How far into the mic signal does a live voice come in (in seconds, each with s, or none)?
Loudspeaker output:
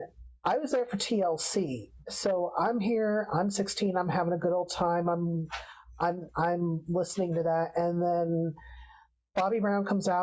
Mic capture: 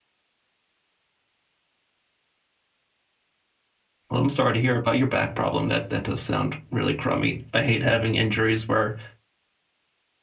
4.1 s